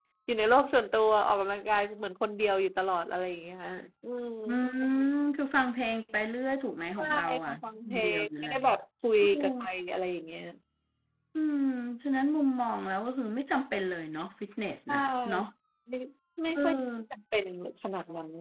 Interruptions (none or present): present